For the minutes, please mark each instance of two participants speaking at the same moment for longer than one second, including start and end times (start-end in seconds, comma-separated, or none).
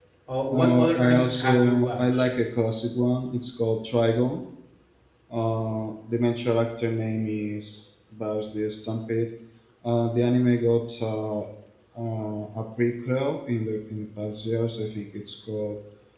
0.5-2.3